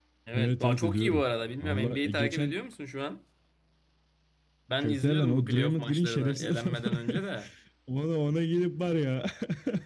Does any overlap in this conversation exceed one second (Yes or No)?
Yes